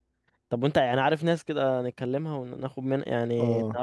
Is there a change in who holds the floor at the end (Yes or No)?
Yes